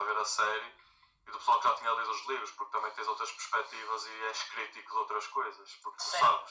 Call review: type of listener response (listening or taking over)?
taking over